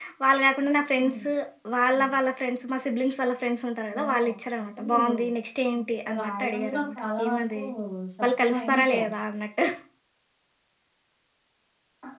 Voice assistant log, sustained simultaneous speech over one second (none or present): present